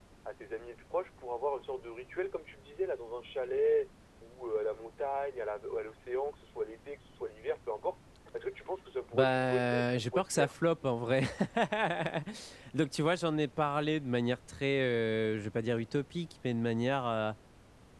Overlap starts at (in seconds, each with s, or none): 9.1 s